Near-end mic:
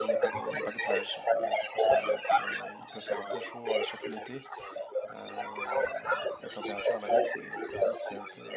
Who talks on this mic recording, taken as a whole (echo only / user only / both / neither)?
both